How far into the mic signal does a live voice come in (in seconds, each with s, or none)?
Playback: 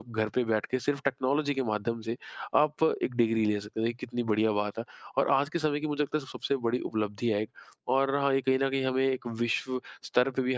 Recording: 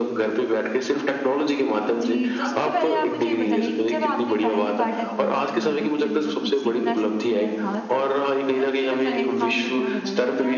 2.0 s